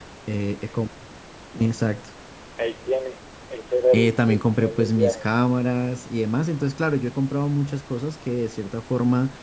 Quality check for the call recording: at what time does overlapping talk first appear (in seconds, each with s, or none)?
3.9 s